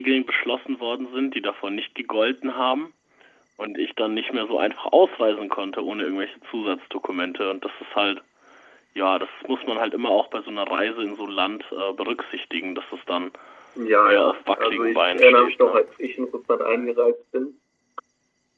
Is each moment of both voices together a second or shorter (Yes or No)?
No